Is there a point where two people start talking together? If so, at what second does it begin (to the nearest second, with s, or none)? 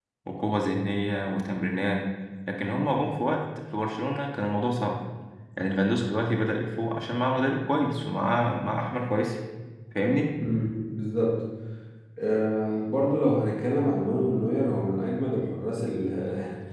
none